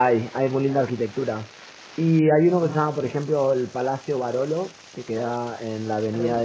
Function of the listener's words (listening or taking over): listening